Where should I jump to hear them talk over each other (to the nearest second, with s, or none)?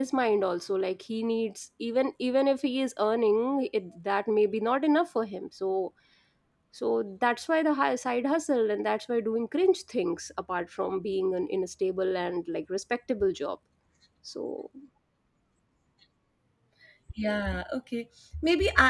none